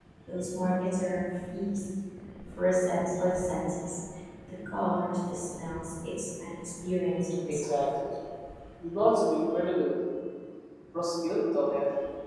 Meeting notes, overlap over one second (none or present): none